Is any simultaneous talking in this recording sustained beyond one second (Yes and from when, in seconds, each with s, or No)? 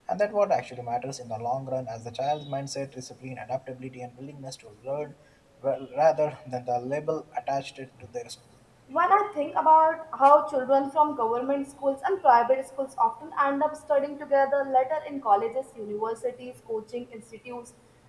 No